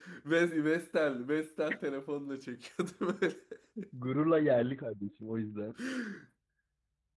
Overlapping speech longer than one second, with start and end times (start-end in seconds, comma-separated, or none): none